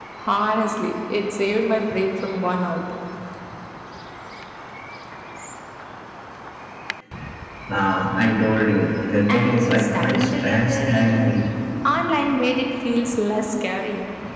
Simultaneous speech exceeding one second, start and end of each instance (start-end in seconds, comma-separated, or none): 9.3-11.4